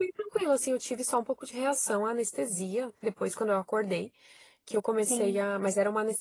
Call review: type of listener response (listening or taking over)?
listening